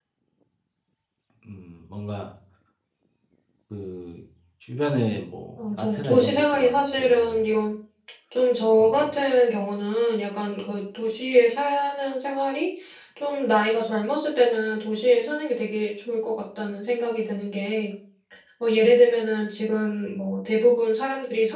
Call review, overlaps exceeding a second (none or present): present